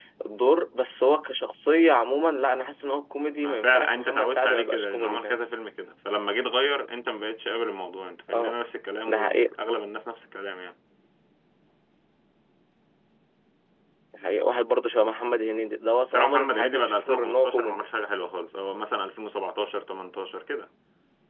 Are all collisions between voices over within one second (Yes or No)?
No